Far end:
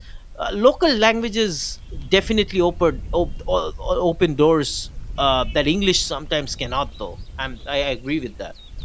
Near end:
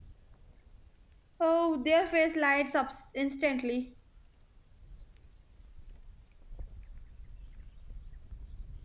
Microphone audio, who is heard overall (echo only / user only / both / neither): user only